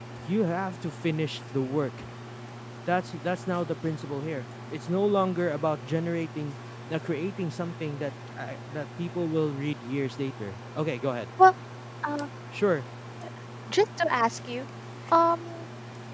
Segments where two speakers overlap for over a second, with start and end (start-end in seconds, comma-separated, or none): none